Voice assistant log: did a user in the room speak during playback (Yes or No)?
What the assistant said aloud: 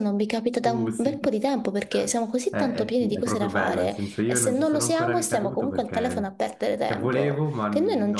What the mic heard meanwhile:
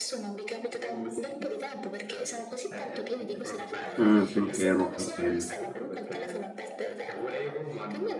Yes